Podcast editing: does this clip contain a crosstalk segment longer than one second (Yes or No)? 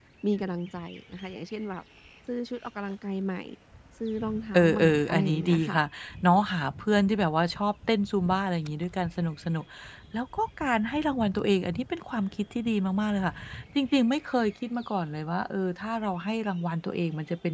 Yes